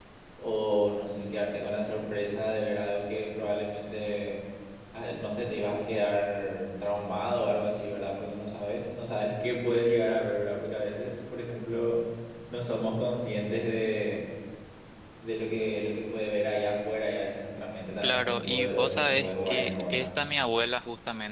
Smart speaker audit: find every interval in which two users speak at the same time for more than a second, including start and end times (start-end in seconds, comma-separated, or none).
18.0-20.1